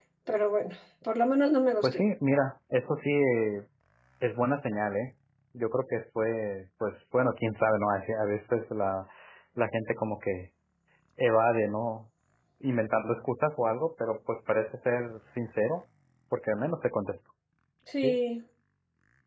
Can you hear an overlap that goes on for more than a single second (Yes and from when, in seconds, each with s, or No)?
No